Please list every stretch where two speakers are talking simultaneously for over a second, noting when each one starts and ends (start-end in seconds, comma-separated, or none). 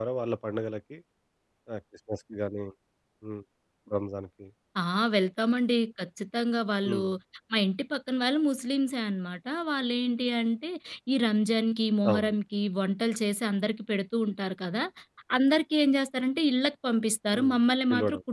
none